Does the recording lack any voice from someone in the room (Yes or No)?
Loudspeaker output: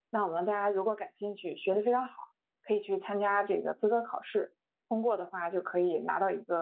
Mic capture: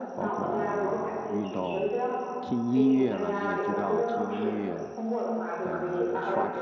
No